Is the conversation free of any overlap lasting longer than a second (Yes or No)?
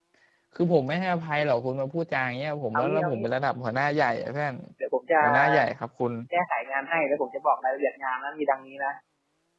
Yes